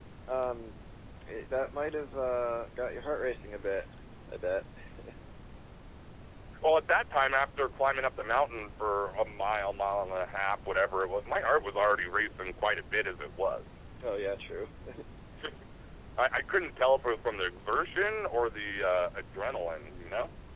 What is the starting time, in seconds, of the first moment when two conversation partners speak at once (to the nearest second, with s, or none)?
none